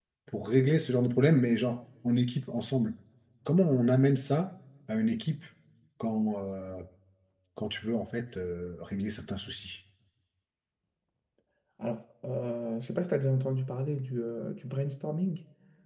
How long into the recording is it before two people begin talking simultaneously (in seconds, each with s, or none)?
none